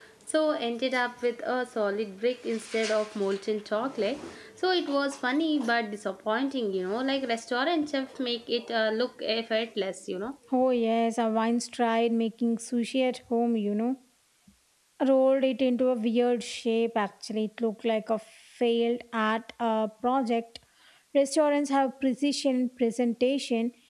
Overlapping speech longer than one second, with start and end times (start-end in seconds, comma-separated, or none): none